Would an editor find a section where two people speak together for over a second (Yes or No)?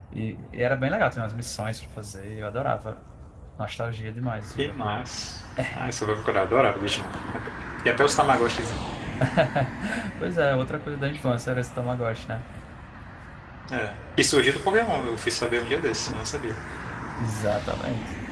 No